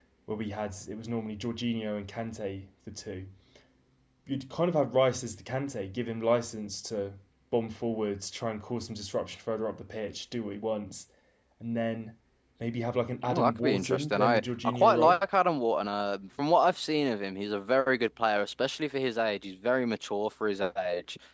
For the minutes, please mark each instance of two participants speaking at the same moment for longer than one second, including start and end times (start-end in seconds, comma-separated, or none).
13.3-15.2